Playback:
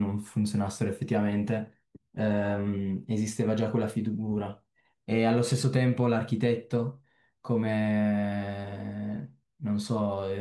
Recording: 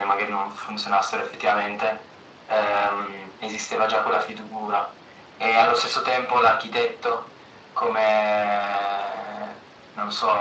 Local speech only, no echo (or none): none